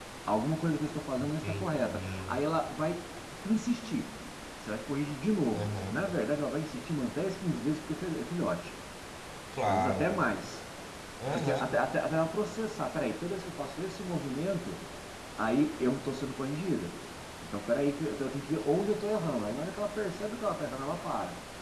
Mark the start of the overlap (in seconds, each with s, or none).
1.2 s